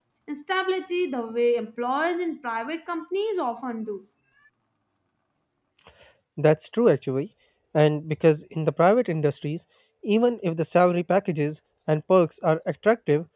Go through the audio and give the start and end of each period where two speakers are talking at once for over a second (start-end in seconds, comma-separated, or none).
none